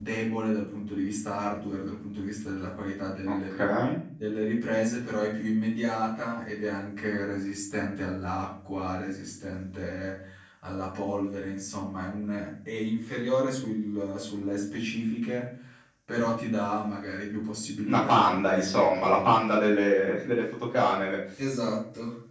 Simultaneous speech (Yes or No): Yes